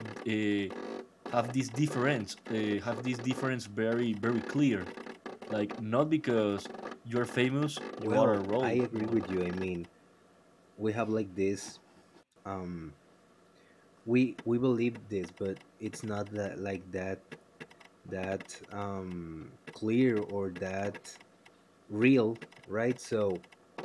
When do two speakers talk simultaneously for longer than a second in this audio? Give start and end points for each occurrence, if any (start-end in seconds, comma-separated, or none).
8.0-9.2